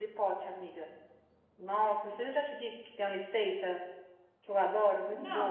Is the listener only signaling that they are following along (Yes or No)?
No